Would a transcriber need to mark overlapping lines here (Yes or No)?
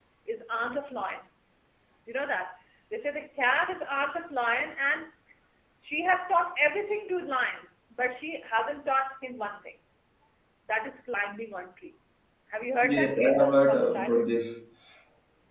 Yes